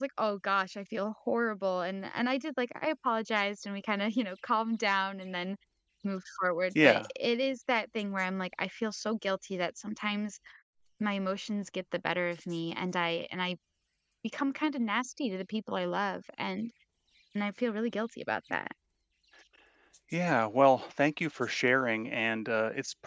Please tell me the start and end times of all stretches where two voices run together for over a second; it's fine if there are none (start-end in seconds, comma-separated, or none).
none